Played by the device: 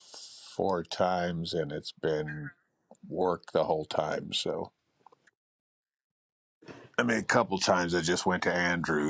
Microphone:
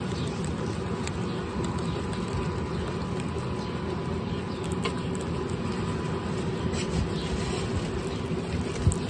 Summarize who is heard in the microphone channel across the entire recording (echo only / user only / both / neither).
neither